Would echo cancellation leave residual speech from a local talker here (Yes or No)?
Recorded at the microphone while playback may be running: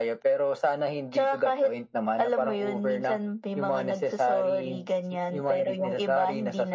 No